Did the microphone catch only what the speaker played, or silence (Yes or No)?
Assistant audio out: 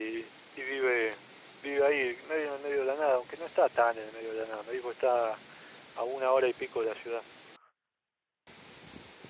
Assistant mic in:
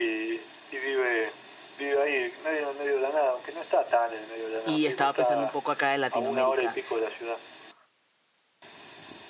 No